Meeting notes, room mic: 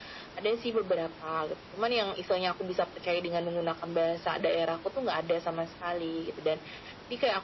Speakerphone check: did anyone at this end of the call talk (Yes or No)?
No